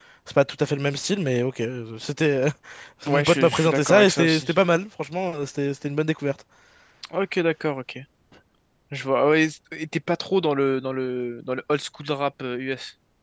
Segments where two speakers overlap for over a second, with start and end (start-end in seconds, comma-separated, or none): 3.1-4.5